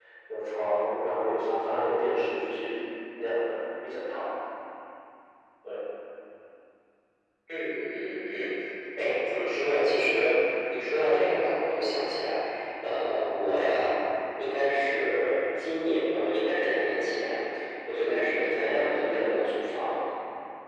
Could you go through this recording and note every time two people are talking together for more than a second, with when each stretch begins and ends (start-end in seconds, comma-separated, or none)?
18.0-19.4